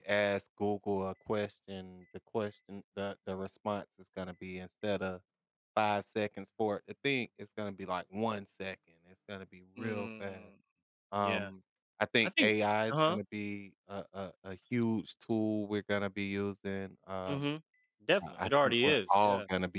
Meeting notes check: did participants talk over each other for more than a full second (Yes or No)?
Yes